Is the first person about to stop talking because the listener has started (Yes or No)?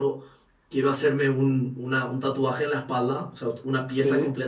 No